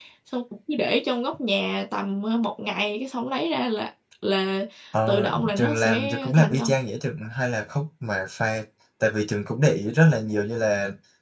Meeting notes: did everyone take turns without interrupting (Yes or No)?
No